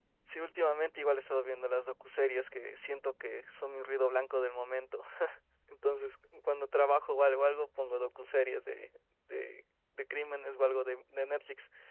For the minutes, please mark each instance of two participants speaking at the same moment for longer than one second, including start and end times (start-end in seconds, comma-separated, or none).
none